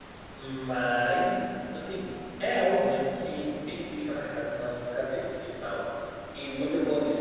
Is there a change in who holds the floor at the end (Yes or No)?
No